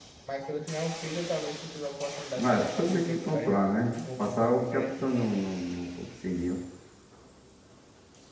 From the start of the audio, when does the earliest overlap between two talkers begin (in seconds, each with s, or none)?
2.4 s